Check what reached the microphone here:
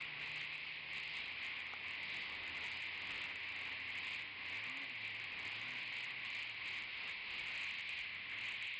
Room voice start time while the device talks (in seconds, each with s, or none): none